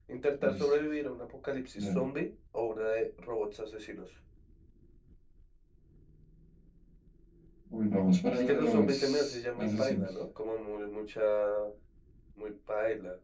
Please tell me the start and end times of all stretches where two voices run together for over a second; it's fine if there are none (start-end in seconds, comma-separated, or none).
8.3-10.1